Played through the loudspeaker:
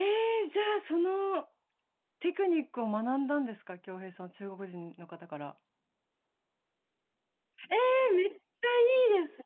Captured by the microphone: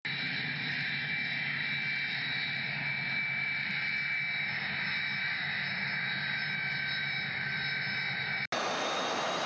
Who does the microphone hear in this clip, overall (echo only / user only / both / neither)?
neither